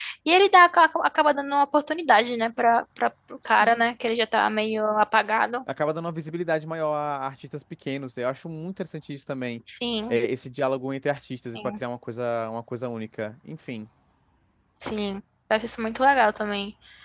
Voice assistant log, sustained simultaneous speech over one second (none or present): none